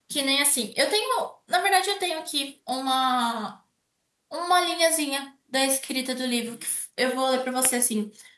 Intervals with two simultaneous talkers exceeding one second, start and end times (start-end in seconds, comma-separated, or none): none